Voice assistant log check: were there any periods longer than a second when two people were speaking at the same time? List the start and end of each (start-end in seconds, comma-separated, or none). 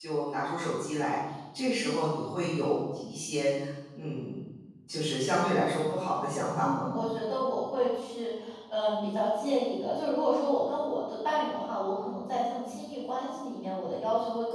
none